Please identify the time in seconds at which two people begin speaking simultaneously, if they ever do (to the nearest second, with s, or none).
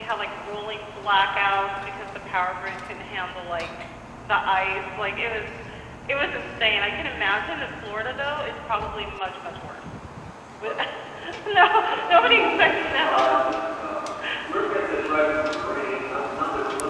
12 s